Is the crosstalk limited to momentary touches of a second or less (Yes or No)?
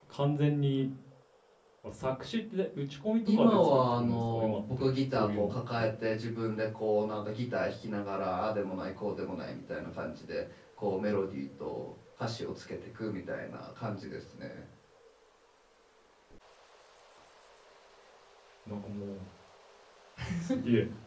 No